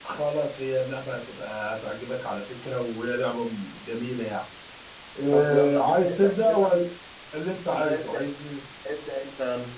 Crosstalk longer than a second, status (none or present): present